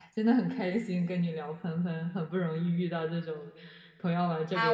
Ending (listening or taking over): taking over